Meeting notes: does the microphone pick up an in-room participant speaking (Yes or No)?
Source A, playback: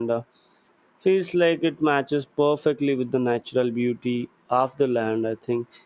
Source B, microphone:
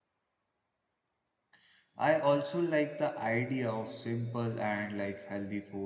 Yes